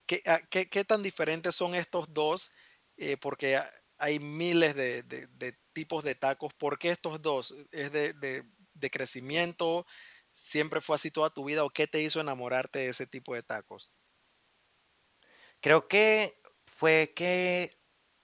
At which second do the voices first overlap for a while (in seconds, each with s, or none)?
none